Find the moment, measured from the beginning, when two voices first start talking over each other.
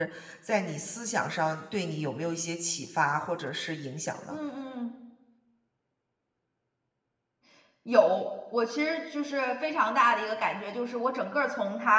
none

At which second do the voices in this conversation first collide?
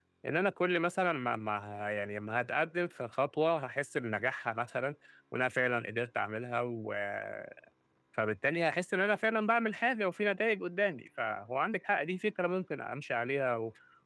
none

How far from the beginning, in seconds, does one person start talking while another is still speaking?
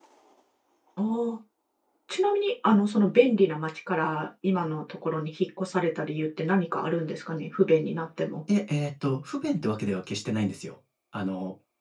none

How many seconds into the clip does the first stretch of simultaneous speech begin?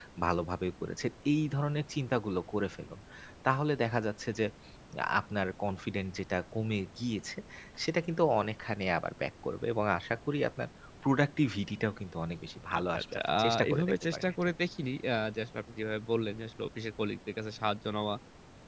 12.7 s

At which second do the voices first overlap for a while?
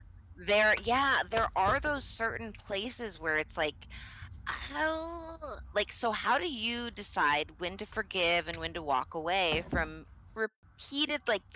none

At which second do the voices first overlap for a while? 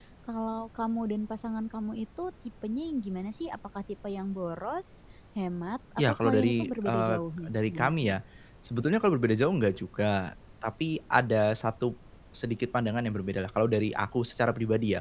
6.0 s

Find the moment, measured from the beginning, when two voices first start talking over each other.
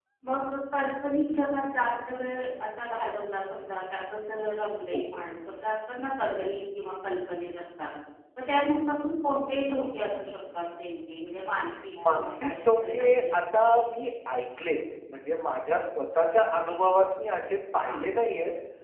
11.9 s

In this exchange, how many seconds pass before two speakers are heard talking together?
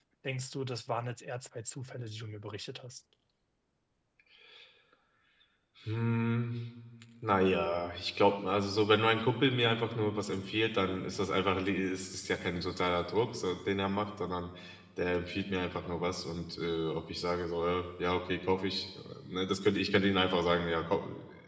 none

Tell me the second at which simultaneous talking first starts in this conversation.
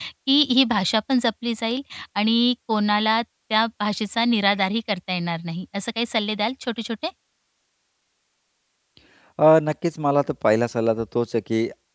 none

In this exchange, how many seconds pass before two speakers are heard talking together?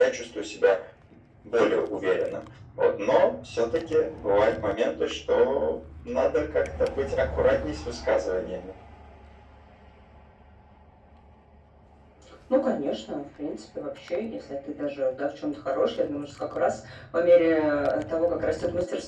none

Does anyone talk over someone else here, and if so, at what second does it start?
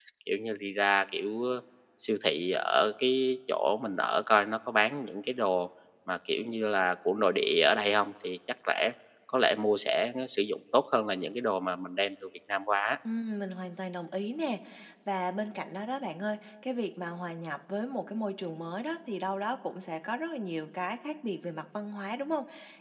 none

